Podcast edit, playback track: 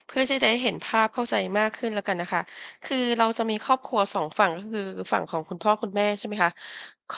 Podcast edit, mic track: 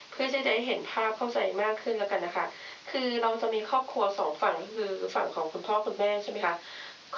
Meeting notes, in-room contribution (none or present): none